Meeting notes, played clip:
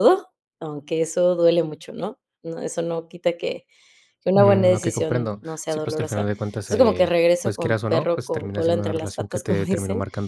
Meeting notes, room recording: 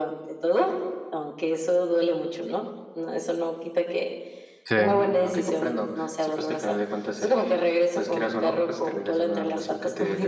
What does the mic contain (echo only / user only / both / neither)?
both